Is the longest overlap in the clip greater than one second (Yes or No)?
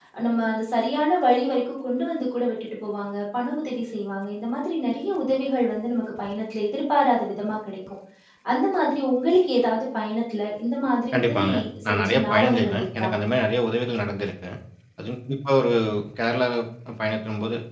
Yes